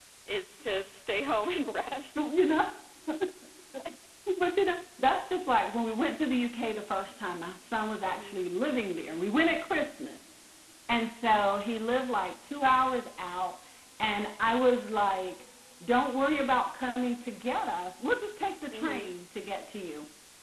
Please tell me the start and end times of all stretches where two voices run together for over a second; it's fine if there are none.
none

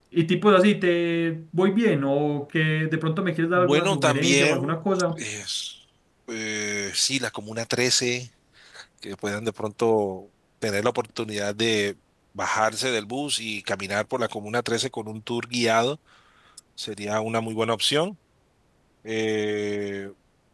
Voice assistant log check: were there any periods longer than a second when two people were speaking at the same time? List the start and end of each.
3.5-4.7

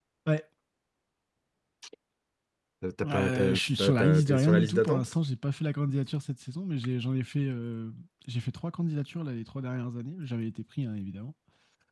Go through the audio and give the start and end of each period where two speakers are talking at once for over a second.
3.0-5.1

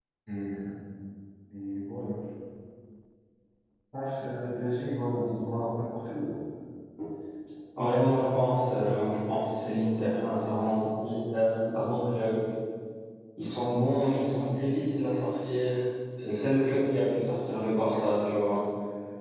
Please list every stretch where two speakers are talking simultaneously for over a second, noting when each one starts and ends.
none

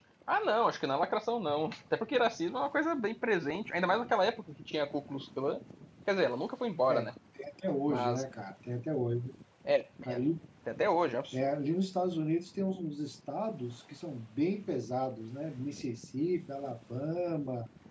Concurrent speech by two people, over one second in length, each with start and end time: none

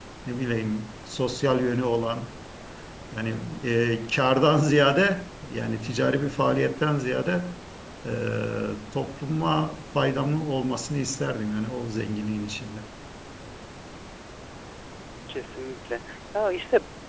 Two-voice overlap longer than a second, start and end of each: none

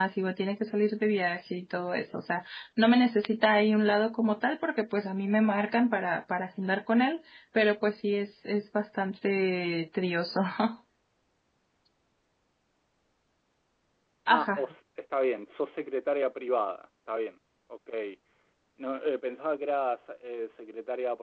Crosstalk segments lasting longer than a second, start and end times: none

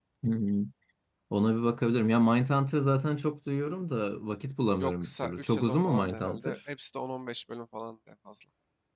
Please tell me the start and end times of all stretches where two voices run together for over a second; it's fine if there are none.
4.8-6.6

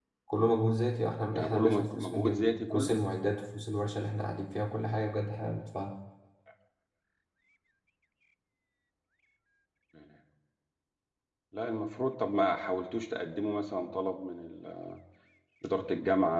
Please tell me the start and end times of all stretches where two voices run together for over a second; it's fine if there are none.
1.4-3.0

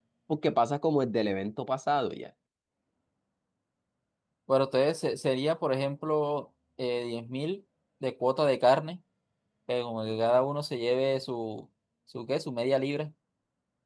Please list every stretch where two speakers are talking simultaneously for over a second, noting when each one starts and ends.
none

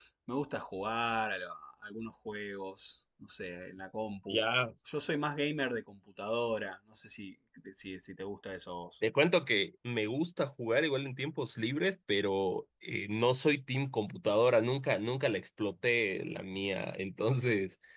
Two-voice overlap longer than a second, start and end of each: none

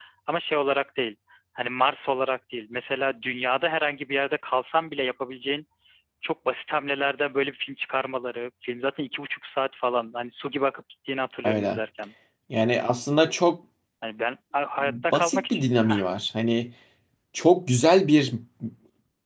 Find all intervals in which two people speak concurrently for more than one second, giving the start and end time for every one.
14.8-16.1

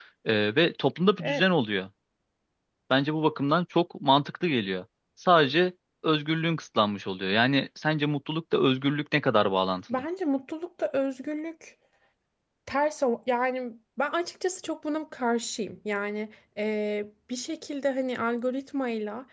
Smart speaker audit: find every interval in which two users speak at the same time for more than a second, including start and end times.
none

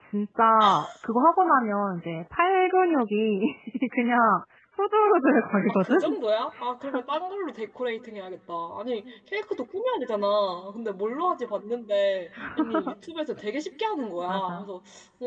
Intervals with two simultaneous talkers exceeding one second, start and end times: none

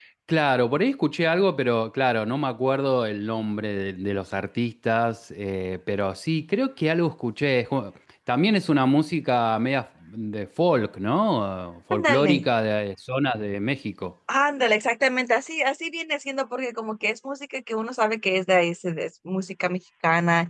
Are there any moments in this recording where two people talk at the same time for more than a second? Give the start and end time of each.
none

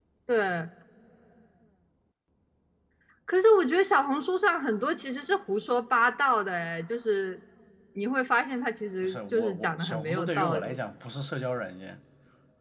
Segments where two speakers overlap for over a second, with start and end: 9.0-10.8

